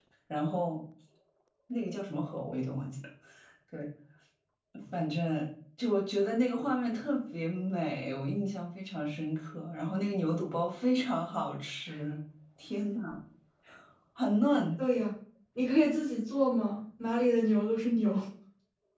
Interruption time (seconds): none

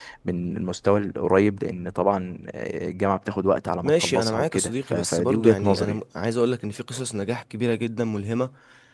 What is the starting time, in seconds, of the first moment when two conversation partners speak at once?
3.8 s

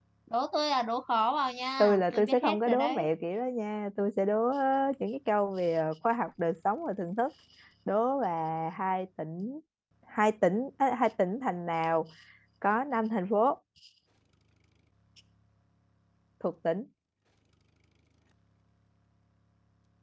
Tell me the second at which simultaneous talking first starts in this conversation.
1.8 s

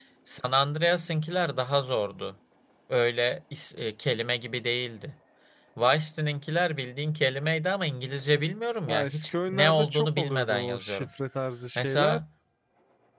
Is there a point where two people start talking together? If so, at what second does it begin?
8.9 s

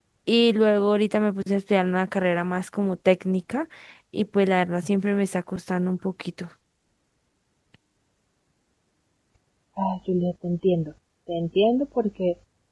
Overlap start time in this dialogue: none

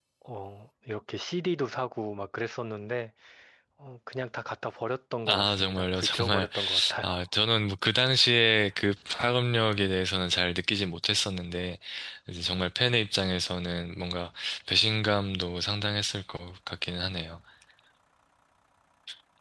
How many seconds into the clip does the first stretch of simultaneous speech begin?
5.2 s

